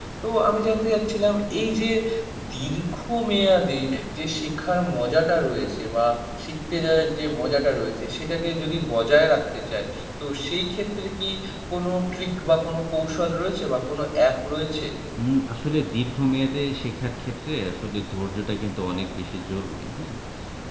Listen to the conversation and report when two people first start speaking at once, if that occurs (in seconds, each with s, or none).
none